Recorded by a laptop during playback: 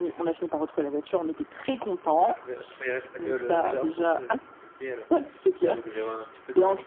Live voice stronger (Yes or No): No